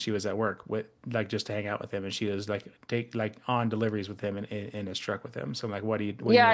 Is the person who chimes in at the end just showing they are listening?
No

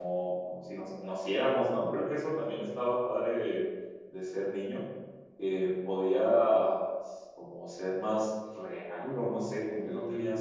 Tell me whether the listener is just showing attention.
Yes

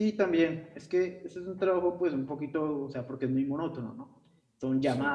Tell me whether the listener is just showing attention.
Yes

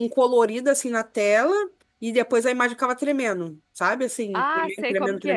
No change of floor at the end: No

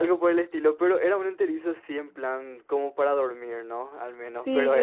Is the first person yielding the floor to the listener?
Yes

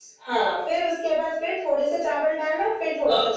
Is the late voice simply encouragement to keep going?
No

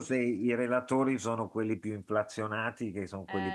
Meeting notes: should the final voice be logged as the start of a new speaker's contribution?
No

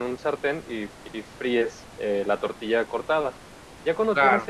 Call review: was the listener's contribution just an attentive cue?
Yes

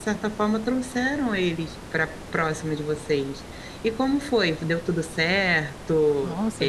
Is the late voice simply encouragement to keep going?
No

